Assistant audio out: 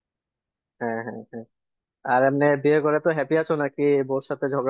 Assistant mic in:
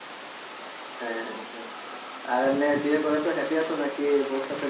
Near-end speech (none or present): none